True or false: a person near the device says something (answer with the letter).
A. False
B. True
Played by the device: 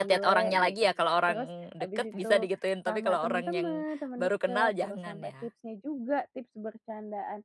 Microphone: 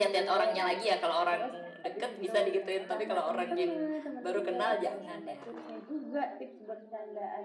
B